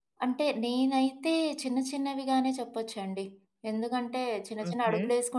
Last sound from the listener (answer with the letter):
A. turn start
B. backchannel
B